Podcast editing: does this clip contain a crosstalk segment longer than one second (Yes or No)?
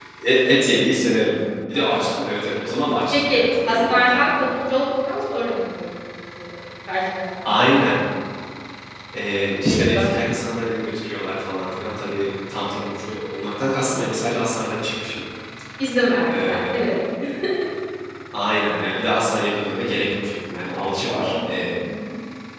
Yes